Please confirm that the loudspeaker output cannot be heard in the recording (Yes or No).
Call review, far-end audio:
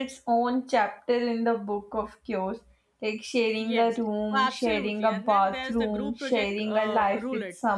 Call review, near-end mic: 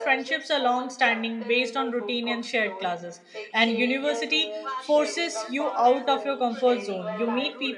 No